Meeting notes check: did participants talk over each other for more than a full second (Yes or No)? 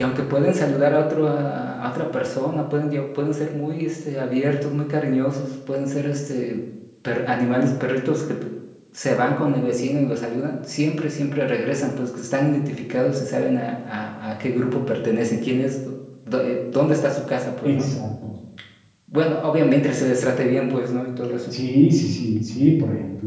No